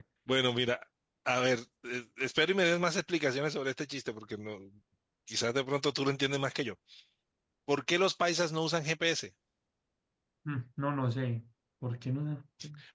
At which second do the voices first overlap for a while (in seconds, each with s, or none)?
none